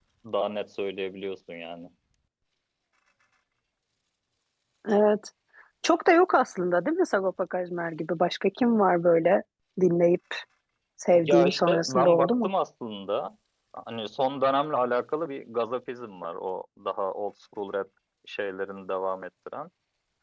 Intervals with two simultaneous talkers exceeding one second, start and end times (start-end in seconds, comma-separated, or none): 11.2-12.5